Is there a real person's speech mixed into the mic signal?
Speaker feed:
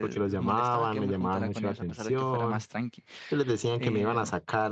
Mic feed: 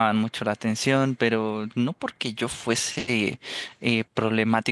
Yes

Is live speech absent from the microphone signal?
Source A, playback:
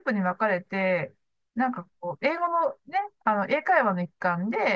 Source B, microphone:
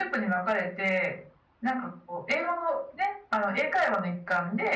Yes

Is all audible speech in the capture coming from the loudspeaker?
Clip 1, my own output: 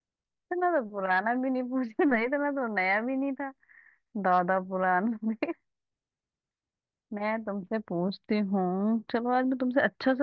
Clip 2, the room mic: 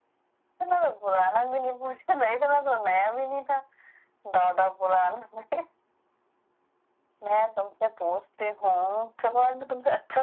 Yes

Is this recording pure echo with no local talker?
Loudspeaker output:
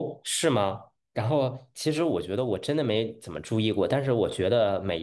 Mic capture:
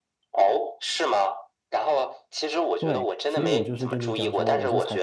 No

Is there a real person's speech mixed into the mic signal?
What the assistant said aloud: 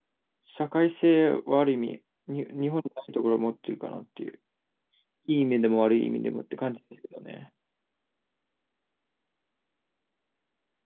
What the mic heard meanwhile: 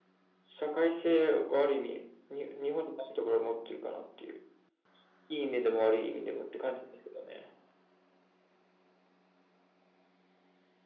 No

